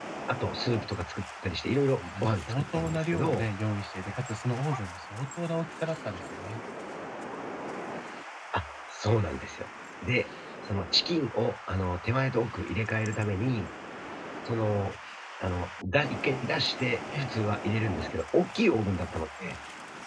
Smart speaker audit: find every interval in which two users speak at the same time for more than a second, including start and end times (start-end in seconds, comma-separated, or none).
2.2-3.4